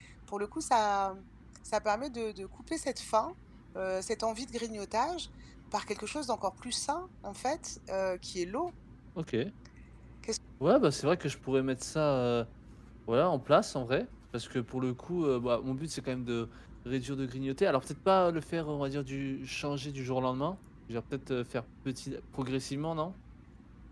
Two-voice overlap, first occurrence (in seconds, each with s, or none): none